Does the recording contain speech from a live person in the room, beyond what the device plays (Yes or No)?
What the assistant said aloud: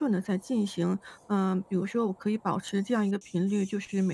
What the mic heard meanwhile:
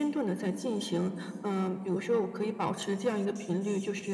No